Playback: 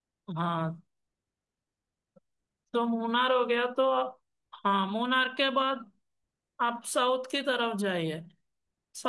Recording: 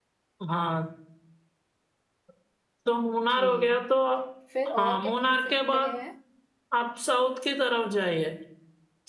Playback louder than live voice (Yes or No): Yes